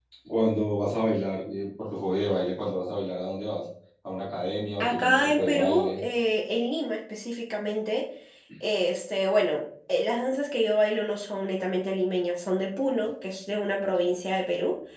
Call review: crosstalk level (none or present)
present